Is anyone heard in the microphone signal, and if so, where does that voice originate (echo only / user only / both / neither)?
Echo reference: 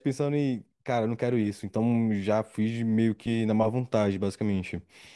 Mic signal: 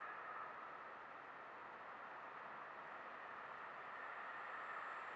neither